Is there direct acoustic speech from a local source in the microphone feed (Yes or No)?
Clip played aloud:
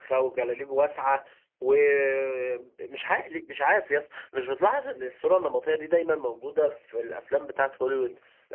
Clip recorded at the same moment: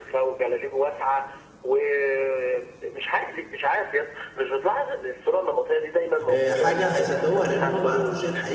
Yes